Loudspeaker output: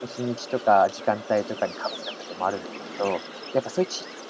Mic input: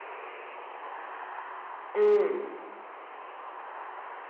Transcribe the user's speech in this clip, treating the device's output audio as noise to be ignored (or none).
うーん。